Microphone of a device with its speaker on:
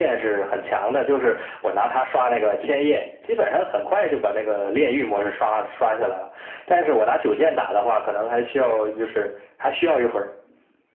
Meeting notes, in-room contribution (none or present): none